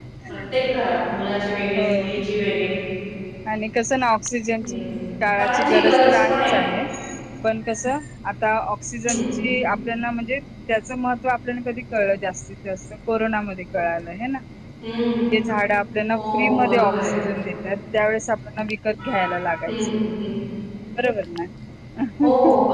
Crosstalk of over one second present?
Yes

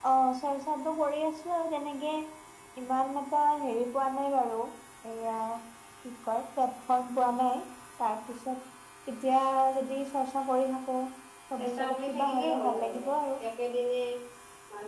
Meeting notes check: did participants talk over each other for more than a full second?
Yes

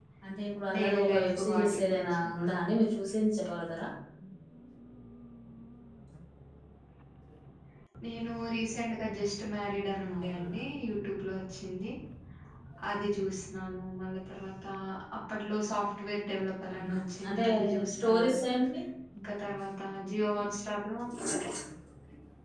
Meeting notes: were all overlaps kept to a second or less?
No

